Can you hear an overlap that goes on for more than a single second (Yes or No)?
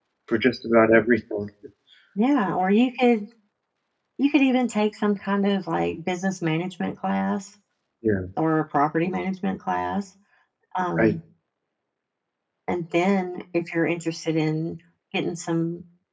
No